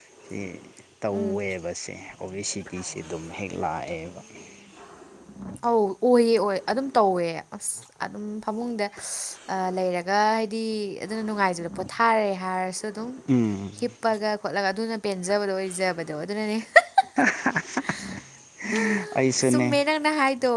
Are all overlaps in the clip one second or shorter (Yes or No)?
Yes